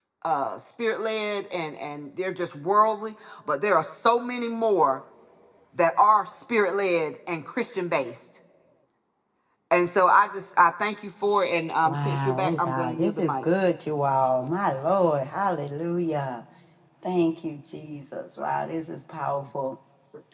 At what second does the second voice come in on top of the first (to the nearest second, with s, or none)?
12 s